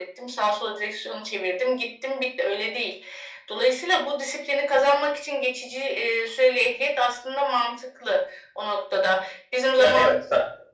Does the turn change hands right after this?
Yes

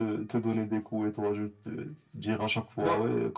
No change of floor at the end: Yes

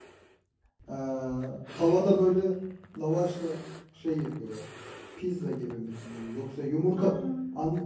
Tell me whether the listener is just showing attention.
Yes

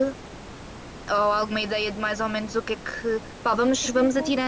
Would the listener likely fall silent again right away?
Yes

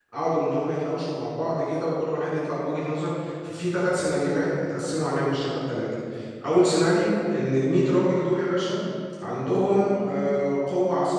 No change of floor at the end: Yes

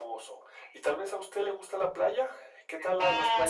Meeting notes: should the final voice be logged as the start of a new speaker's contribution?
Yes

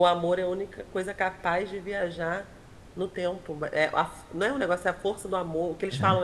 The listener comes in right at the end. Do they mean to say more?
No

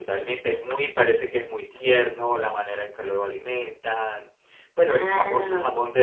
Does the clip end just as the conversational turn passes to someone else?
No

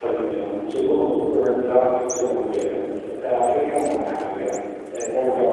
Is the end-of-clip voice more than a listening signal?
Yes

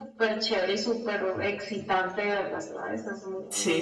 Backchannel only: No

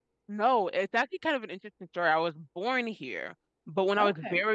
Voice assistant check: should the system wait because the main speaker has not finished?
Yes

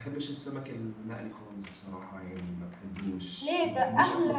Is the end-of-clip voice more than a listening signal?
Yes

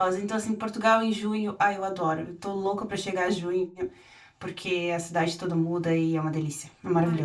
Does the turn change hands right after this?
Yes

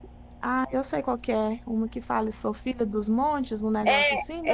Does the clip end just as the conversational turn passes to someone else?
Yes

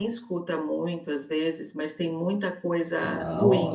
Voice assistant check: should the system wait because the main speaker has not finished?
No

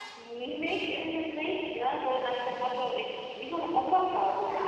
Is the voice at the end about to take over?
Yes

